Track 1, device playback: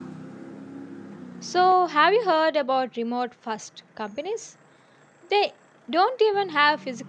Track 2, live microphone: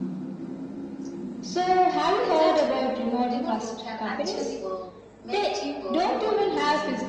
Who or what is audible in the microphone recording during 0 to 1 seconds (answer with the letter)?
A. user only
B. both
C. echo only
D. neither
D